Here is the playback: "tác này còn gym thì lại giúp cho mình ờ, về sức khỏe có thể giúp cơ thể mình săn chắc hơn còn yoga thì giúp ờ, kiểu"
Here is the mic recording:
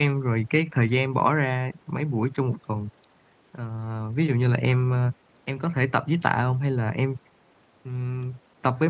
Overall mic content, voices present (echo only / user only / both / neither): user only